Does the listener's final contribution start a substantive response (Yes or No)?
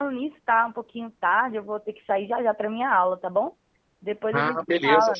Yes